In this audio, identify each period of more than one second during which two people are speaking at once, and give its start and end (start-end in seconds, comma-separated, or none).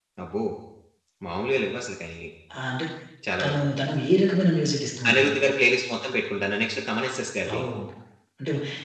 none